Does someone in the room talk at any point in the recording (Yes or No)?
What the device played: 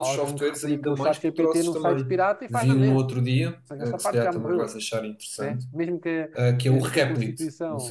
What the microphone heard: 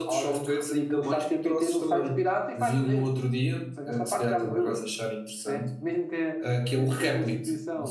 No